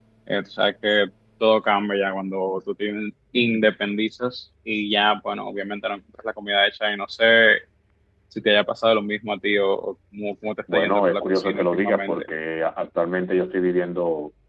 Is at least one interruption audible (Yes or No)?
Yes